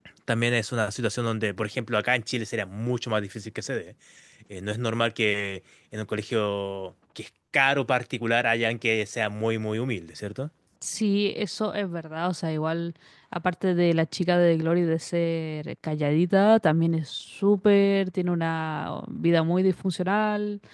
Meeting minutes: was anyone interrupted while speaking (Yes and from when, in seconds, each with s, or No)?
No